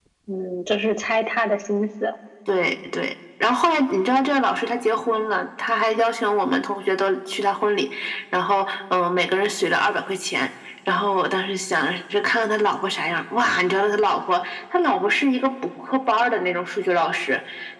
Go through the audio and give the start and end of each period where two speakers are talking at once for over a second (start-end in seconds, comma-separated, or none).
none